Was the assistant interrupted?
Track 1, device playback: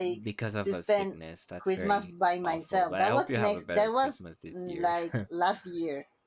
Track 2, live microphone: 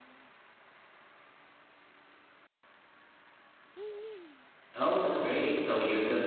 Yes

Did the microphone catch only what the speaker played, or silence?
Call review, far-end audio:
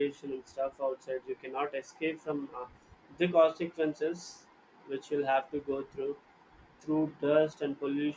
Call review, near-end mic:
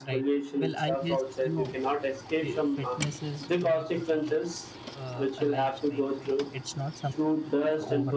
No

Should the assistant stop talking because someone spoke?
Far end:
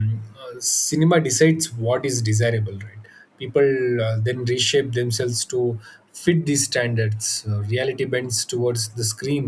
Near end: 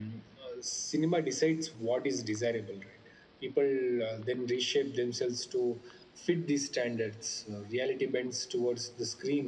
No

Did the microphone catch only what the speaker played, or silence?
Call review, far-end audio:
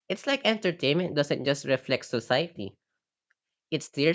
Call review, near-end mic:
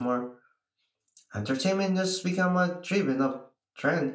No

